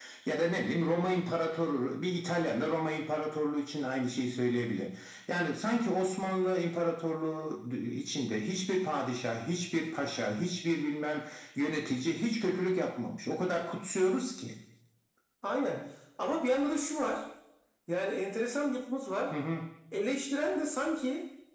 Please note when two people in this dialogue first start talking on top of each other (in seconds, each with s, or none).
none